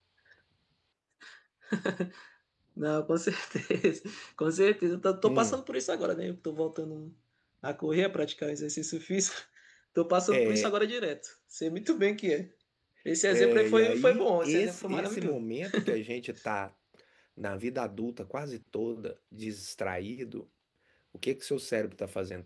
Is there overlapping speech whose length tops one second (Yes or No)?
Yes